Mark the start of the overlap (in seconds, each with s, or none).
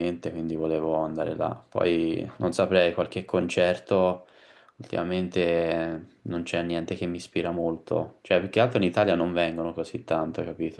none